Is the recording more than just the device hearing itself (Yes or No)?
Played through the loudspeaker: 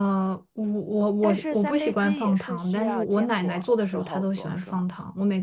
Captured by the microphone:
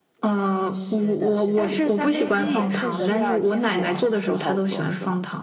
Yes